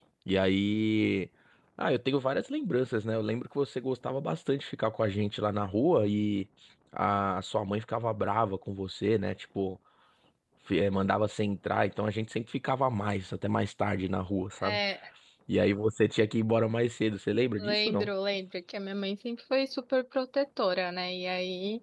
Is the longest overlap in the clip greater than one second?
No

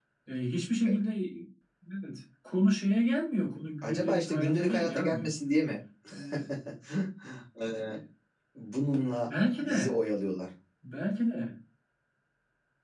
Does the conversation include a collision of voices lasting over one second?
Yes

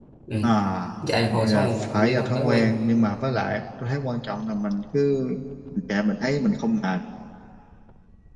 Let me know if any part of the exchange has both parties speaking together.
Yes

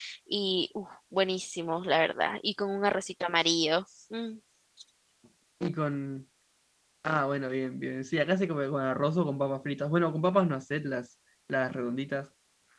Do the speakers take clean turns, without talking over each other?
Yes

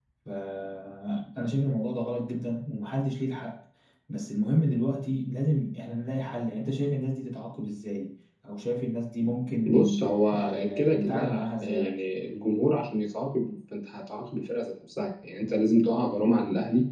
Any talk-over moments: Yes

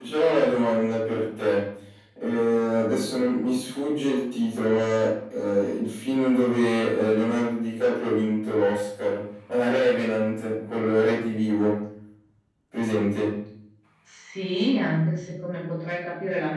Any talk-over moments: No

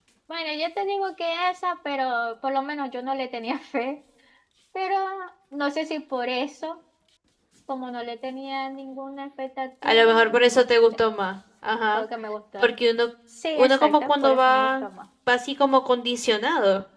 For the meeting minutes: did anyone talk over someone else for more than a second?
Yes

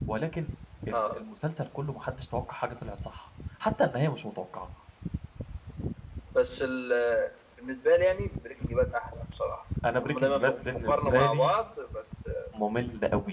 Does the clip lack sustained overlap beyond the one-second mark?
No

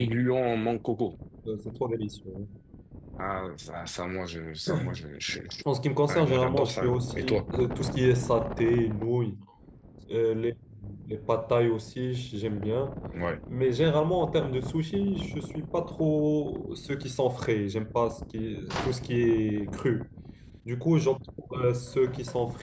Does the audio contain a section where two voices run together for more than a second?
Yes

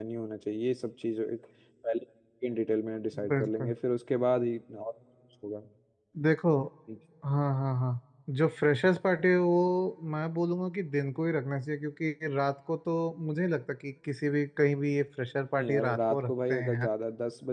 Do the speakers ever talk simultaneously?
Yes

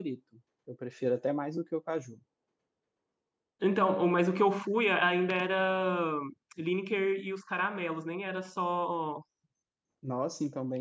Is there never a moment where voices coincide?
Yes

